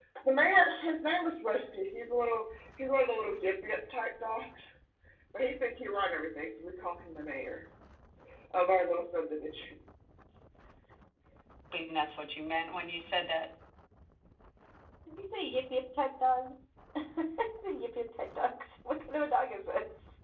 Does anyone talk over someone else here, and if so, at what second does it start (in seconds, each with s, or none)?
none